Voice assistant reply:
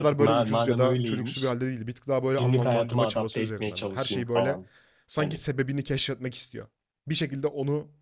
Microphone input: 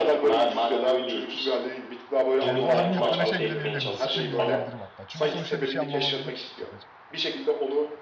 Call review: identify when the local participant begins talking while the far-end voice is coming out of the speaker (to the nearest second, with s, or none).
2 s